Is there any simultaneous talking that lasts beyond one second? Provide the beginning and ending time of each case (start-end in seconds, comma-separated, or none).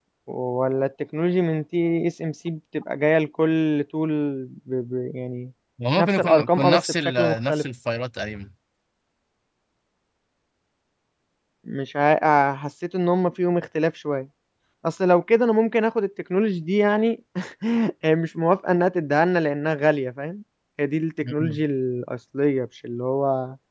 6.0-7.6